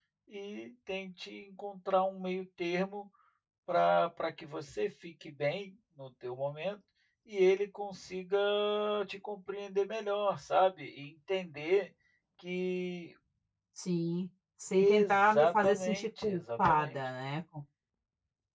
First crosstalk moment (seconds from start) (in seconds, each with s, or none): 14.7 s